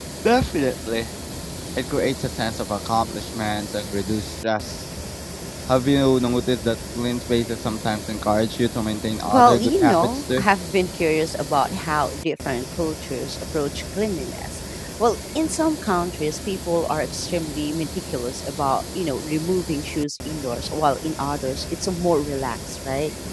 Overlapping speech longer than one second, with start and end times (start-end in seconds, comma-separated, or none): 9.2-10.5